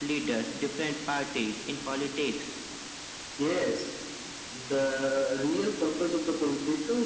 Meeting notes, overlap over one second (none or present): none